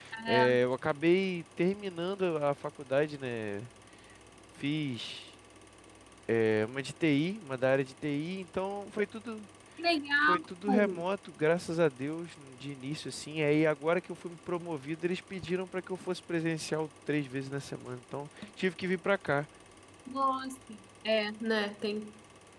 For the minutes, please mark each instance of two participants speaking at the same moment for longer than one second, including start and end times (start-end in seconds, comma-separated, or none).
none